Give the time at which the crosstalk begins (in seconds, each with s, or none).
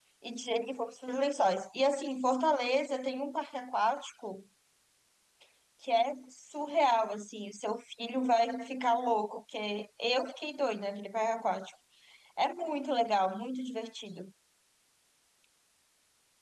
none